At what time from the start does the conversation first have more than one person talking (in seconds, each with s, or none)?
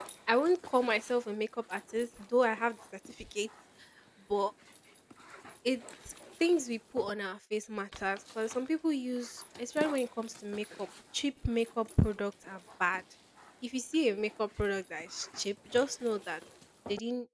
none